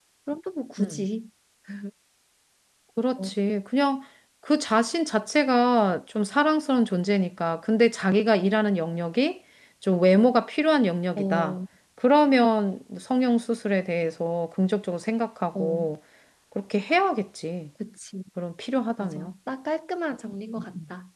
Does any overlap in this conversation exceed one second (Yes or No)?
No